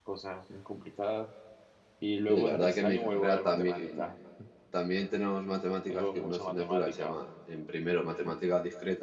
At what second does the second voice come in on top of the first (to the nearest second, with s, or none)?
2 s